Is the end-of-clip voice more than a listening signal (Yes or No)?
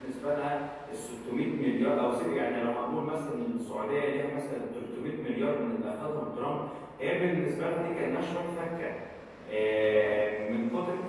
No